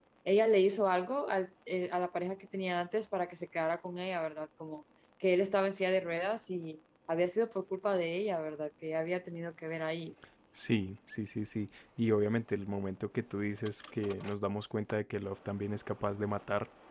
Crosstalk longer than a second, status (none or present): none